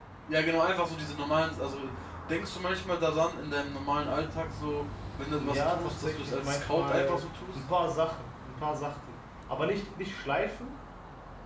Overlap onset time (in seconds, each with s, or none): 5.3 s